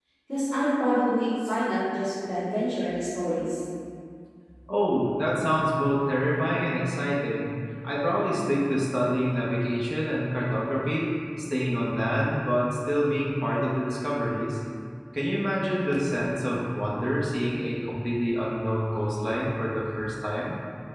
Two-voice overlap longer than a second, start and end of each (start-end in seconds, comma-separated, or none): none